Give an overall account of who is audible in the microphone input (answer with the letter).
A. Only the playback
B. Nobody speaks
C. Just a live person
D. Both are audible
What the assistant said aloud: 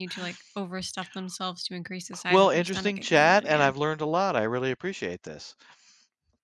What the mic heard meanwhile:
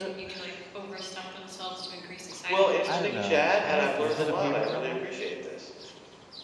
D